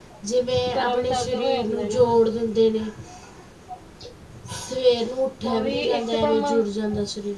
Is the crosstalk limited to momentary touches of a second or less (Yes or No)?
No